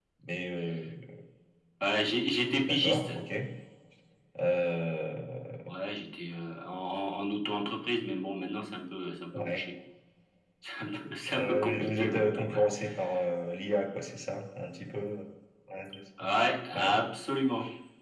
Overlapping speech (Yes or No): Yes